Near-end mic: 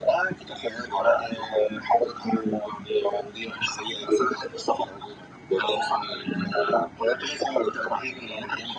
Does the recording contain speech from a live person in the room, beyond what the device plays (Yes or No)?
No